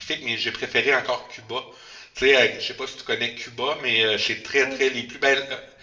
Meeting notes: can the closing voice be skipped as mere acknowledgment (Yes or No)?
Yes